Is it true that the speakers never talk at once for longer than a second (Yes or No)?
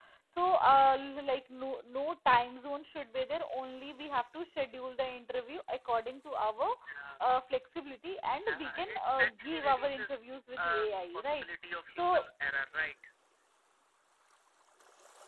No